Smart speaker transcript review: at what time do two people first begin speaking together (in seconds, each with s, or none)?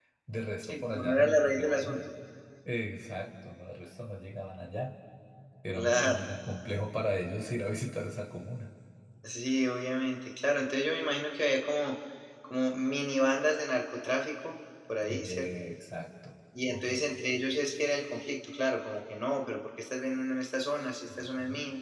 0.6 s